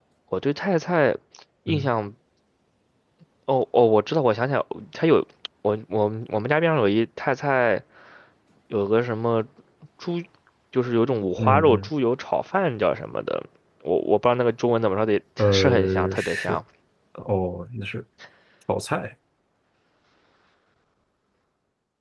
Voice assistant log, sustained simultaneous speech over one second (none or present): present